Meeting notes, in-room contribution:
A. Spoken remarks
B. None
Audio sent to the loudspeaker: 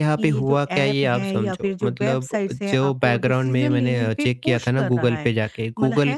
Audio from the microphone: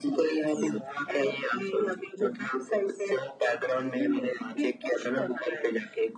B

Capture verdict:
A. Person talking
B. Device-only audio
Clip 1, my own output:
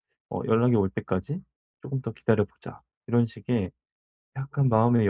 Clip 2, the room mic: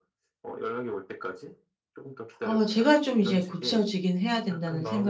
A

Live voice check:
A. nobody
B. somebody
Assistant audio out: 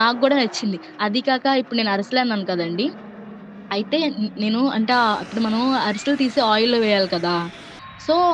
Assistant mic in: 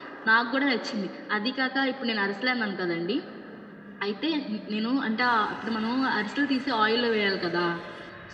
A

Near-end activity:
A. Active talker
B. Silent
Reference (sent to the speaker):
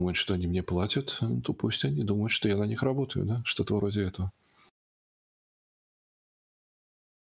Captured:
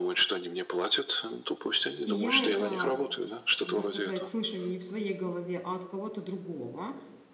A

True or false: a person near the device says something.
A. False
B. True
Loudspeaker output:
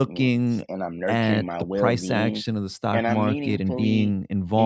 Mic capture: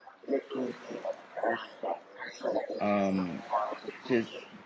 B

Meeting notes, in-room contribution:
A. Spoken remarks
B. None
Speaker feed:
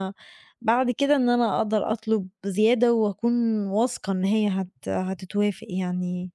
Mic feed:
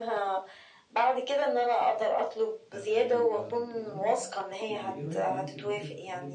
A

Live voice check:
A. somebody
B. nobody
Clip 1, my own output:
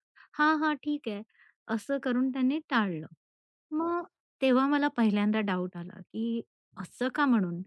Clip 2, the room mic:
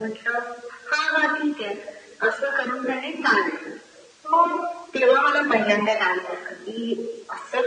B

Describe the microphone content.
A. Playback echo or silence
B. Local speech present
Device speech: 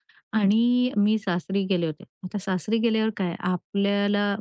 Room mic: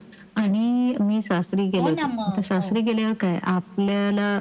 B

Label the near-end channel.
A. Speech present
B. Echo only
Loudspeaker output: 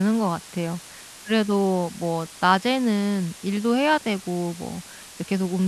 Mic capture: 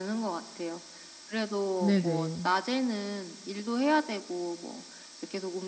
A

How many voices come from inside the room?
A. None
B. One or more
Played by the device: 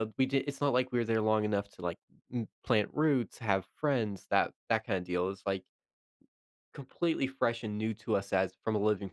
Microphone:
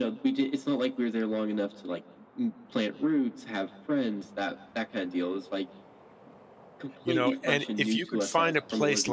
B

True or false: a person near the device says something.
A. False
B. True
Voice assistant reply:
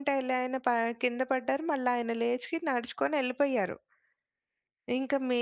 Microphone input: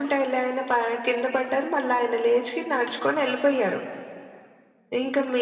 A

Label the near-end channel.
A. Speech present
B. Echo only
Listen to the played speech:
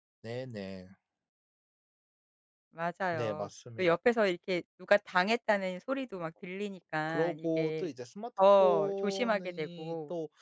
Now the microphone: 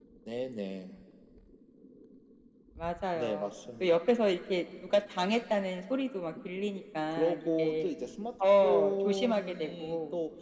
B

